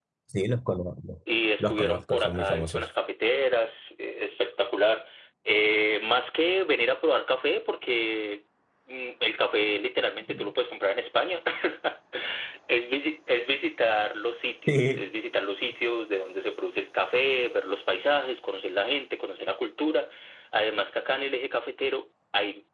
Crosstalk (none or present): present